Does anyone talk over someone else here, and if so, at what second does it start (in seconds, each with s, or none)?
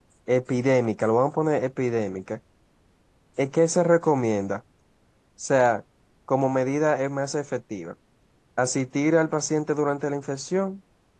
none